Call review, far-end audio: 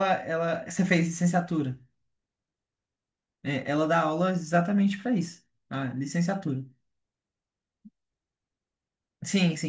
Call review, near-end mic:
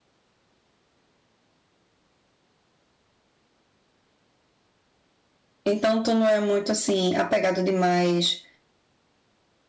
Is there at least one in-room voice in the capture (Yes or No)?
Yes